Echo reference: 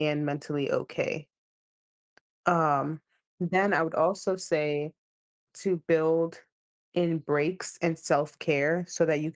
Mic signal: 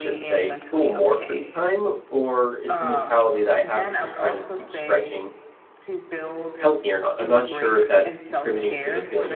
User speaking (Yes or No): Yes